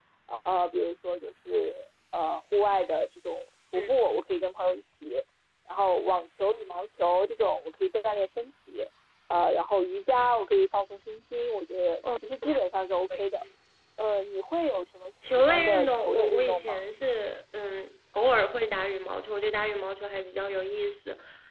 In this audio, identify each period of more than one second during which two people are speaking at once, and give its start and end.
15.5-16.8

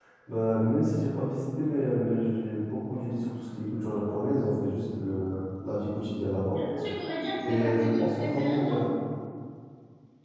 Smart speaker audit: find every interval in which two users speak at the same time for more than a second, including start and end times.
7.4-8.8

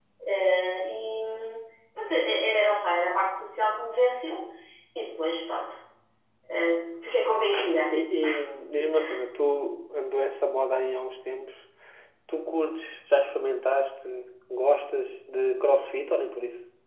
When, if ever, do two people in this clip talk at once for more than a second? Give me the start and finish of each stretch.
none

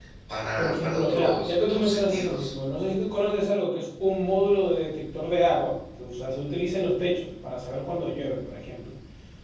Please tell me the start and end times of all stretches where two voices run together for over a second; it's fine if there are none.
0.6-2.5

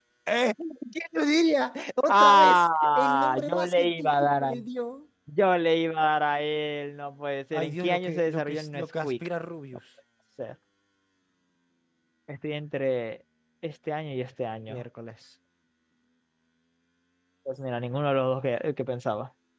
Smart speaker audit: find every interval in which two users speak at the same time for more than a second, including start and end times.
2.1-4.5, 7.5-9.1

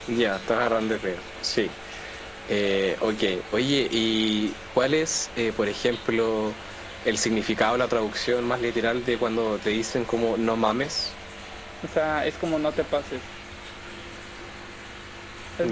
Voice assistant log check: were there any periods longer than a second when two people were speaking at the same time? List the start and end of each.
none

